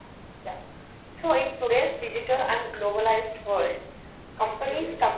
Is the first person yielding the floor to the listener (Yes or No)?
No